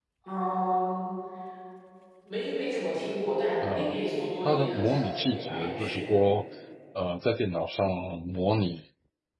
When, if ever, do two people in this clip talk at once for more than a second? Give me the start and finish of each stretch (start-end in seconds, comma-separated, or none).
4.4-6.2